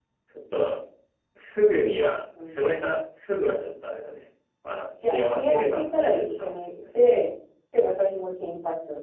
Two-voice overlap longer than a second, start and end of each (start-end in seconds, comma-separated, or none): 5.0-6.7